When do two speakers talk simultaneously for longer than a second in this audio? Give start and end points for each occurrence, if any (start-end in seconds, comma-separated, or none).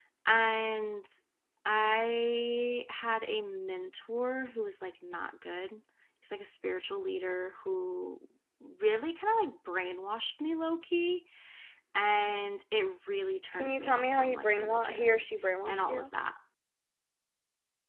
13.5-15.2